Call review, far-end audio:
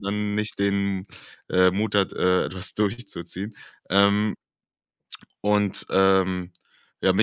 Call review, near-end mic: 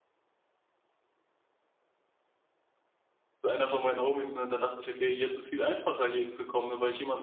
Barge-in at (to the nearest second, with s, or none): 3 s